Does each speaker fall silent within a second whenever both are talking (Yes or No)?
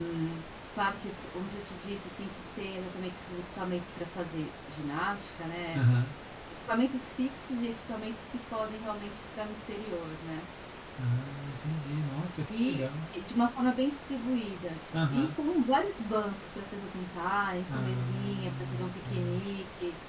No